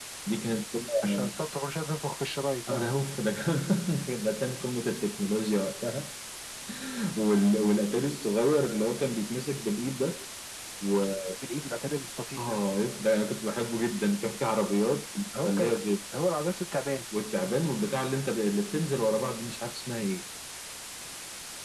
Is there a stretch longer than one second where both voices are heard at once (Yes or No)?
No